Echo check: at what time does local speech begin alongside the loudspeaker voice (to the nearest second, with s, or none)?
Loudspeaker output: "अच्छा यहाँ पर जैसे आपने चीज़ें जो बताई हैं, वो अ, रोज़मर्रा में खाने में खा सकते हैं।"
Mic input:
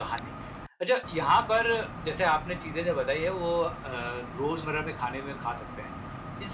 none